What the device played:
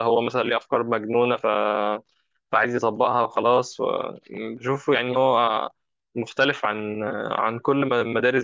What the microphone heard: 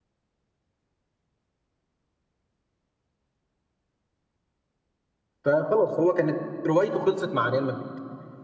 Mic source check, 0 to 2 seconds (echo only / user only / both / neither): neither